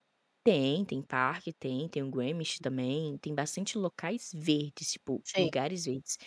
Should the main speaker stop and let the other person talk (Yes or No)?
No